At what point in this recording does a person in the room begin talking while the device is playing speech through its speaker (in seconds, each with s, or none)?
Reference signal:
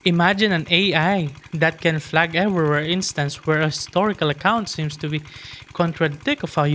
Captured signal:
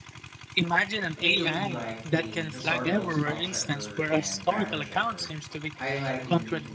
1.2 s